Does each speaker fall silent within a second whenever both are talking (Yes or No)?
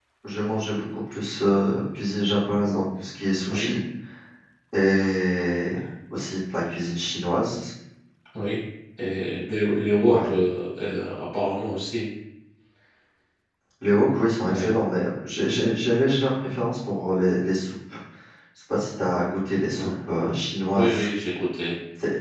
Yes